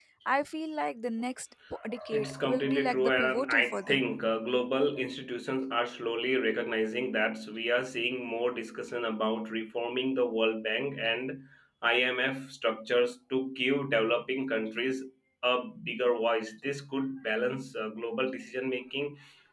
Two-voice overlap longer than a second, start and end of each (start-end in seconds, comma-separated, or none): 2.1-4.0